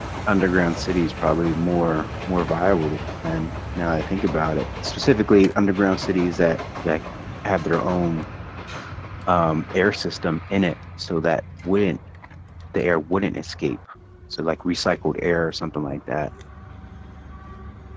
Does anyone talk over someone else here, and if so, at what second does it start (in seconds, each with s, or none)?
none